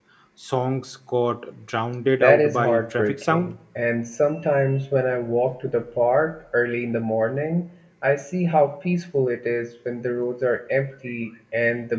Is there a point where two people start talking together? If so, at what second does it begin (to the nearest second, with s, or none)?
2 s